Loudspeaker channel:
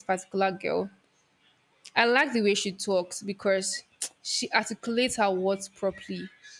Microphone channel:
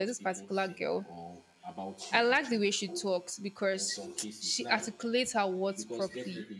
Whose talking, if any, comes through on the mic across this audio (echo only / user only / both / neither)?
both